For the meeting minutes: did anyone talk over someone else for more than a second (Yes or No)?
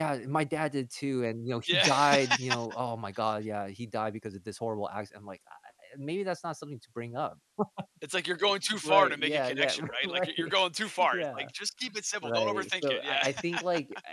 Yes